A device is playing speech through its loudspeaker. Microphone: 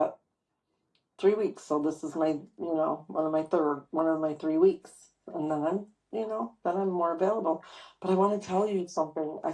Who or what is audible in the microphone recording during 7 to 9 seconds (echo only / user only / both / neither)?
user only